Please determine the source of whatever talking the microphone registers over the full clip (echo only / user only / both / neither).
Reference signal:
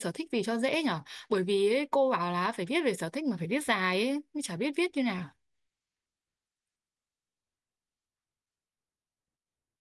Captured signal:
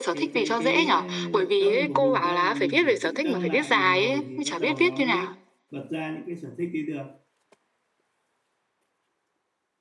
both